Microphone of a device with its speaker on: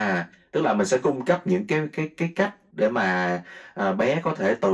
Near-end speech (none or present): none